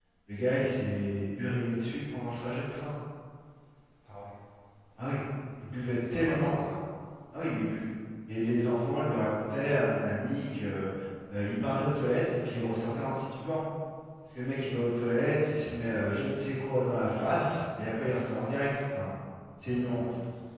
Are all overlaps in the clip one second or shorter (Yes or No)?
Yes